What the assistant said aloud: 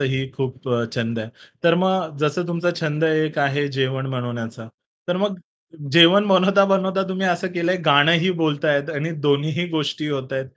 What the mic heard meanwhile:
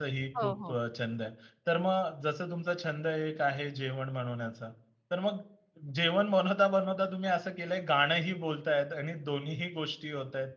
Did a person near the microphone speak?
Yes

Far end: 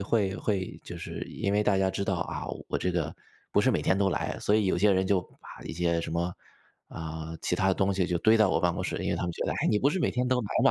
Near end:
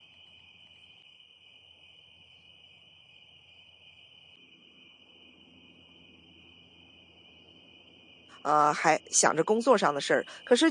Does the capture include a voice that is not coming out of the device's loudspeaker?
Yes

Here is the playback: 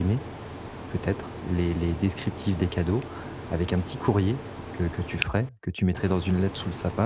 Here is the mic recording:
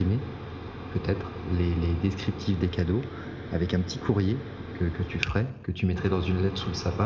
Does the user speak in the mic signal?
No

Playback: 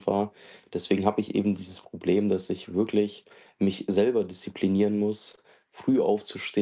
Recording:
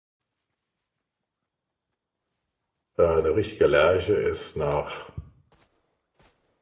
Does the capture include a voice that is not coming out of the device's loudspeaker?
Yes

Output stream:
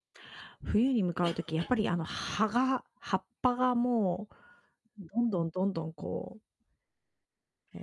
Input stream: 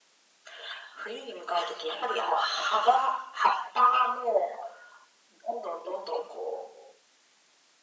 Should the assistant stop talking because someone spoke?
No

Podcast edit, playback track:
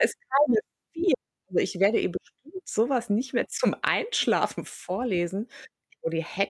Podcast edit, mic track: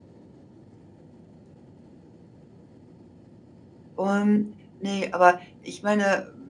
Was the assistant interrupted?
Yes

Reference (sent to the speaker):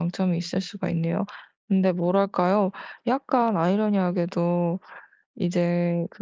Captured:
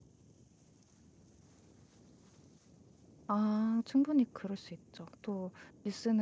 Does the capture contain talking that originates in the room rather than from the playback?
Yes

